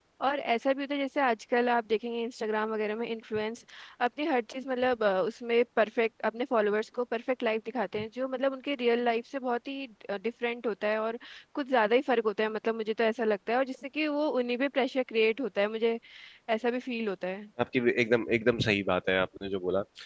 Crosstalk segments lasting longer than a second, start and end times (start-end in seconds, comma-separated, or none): none